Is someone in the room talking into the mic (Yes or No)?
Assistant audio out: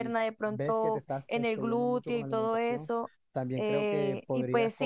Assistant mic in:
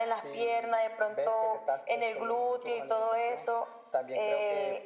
No